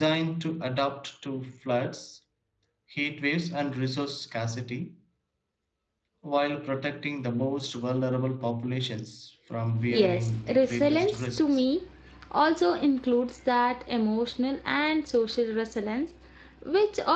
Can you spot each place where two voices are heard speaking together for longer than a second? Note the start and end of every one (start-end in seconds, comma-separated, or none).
9.9-11.6